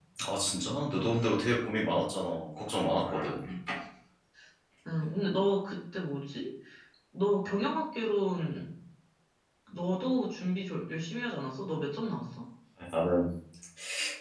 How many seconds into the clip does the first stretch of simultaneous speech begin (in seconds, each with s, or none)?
none